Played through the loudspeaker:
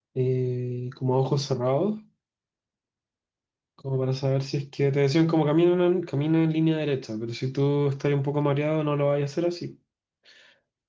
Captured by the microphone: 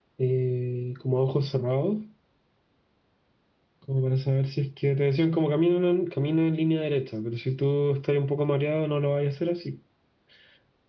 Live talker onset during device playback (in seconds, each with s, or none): none